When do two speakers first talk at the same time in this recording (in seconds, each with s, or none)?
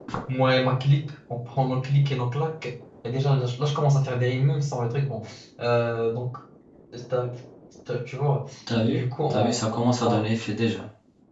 8.8 s